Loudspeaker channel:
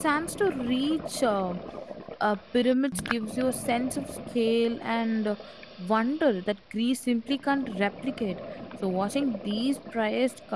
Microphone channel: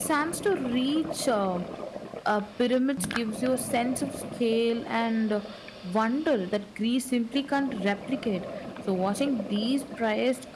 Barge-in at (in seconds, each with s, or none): none